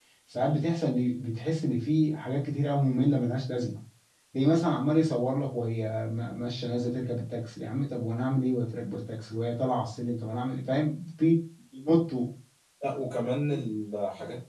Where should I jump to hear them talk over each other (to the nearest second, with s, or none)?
none